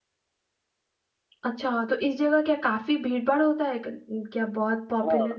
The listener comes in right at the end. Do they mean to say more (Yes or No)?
Yes